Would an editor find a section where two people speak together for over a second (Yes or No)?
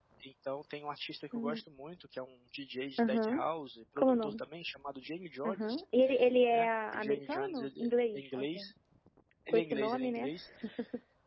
Yes